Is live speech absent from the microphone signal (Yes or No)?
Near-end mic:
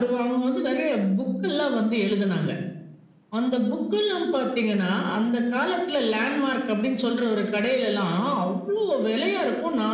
Yes